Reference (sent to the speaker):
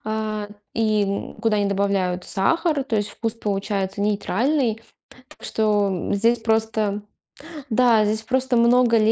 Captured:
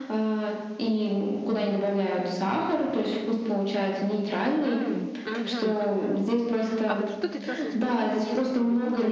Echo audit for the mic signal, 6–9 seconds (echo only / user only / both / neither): both